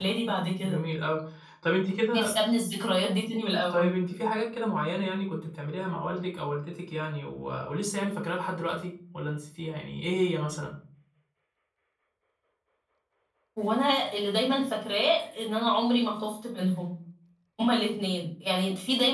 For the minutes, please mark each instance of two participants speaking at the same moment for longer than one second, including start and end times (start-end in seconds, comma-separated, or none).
none